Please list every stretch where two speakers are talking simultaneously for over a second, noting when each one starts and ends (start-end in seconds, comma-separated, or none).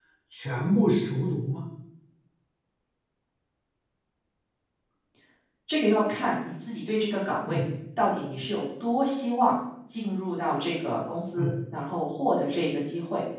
none